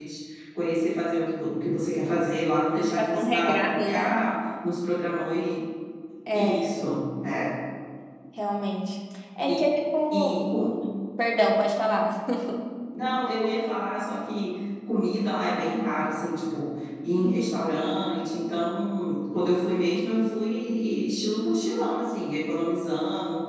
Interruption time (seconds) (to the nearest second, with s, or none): 3 s